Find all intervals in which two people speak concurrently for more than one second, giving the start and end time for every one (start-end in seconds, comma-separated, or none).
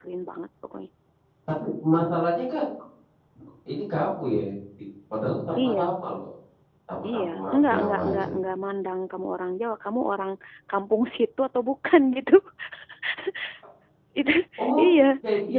7.1-8.3